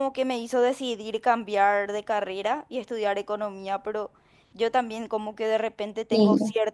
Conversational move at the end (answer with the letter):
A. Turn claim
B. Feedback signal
B